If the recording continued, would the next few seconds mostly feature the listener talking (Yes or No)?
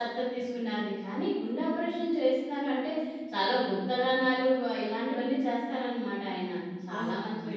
Yes